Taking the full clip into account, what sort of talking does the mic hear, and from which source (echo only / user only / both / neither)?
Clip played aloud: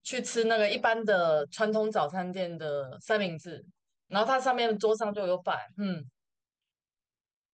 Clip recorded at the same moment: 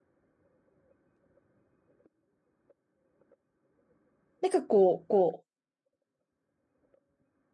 user only